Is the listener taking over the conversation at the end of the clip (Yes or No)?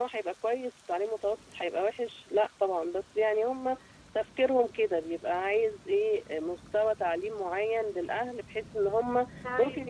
Yes